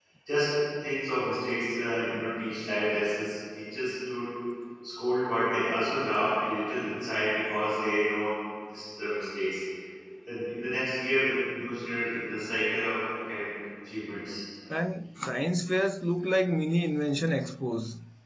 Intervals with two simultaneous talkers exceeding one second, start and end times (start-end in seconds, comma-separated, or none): none